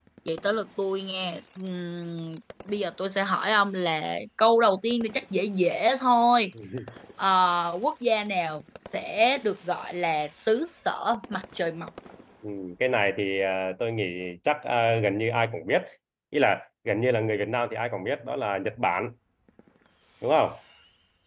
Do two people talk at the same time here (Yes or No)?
No